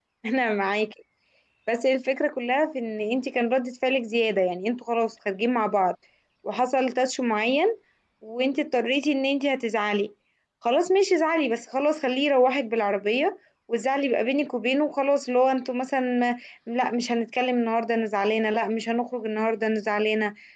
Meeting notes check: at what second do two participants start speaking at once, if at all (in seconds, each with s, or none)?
none